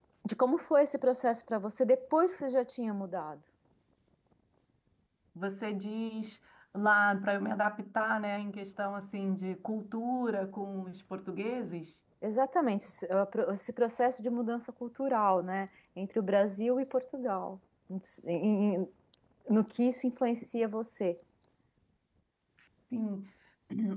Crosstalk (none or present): none